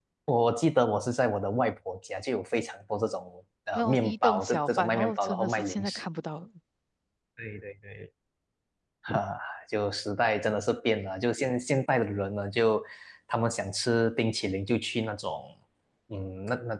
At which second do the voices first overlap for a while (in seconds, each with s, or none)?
3.7 s